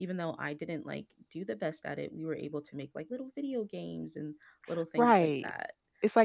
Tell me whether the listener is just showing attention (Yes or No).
No